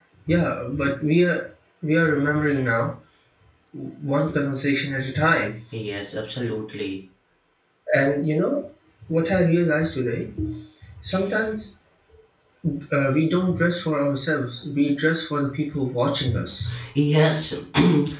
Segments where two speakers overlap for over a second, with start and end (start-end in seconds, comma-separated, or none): none